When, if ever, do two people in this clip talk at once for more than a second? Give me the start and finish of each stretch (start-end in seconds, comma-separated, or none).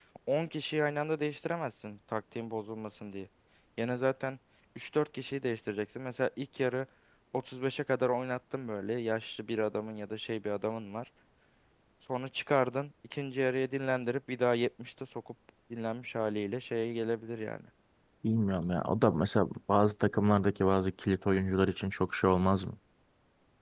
none